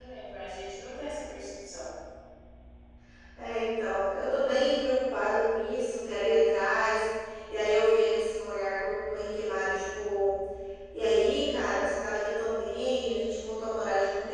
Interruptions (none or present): none